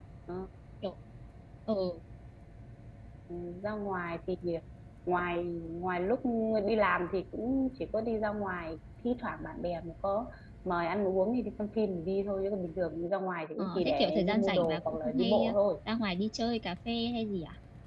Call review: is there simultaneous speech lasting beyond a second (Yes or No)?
Yes